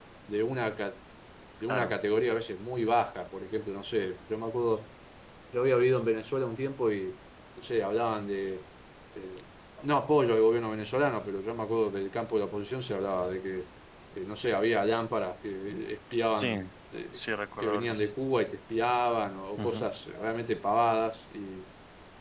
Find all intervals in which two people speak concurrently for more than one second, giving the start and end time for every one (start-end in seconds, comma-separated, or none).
none